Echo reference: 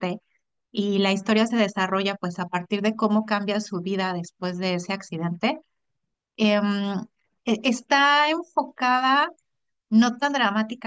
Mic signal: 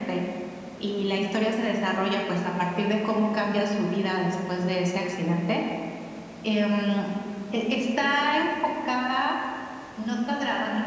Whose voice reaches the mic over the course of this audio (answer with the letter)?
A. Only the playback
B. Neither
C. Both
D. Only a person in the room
A